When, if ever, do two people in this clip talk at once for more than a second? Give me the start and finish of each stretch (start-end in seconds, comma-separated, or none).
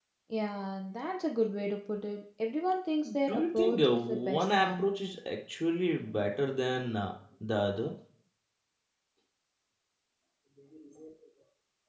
3.3-4.9